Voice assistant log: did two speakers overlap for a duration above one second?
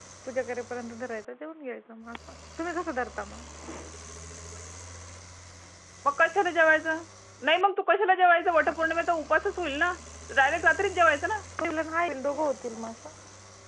No

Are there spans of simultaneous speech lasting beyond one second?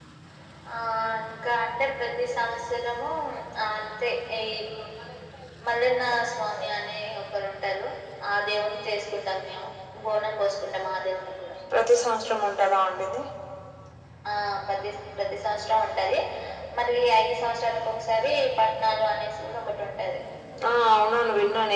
No

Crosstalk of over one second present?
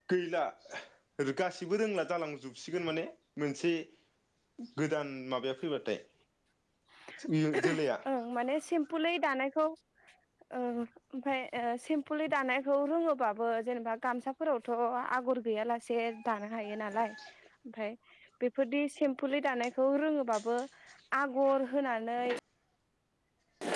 No

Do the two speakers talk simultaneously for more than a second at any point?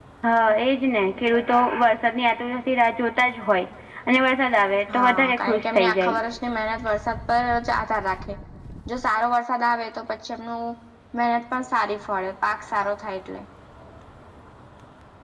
Yes, from 4.9 s

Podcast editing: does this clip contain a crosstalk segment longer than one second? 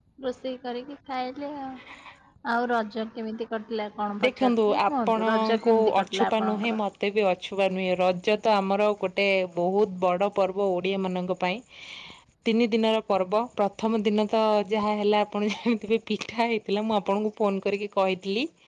Yes, from 4.2 s

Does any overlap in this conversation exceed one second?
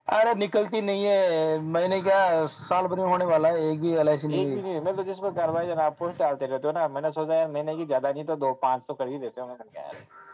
No

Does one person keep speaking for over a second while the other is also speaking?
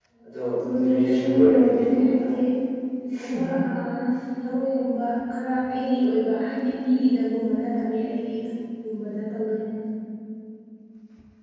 Yes, from 0.8 s

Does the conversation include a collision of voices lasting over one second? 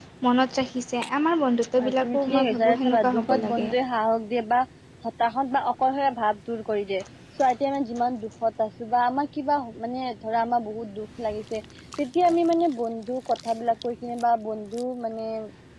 Yes, from 1.8 s

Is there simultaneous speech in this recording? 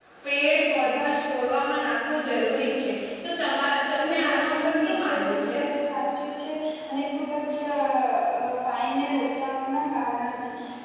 Yes, from 3.9 s

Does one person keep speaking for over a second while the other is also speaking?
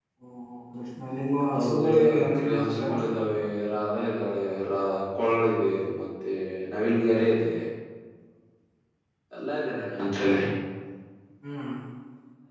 Yes, from 1.5 s

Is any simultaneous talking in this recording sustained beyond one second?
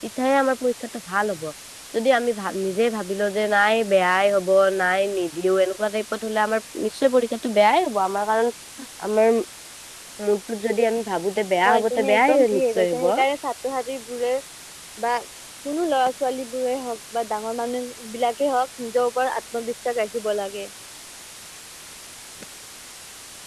Yes, from 11.6 s

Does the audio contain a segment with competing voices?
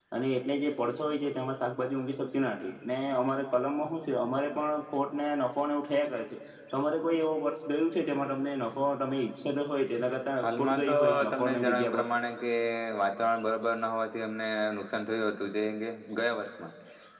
Yes, from 10.4 s

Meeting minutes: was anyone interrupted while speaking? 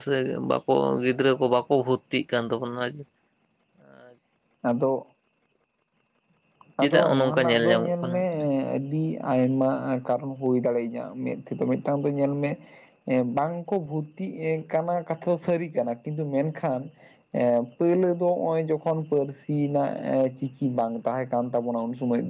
Yes, from 6.8 s

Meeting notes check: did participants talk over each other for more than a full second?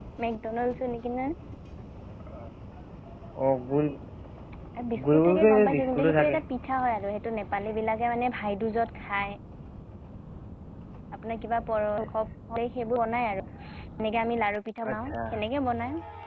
Yes, from 5.1 s

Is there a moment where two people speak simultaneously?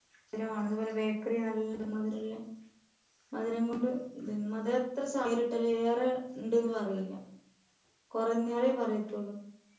No

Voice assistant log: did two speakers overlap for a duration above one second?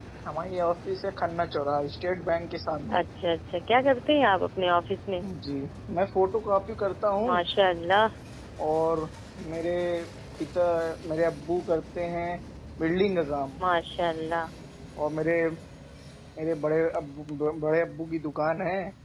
No

